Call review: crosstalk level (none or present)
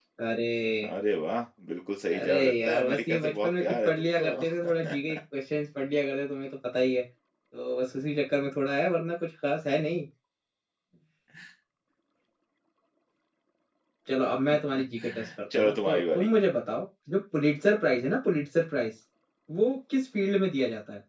present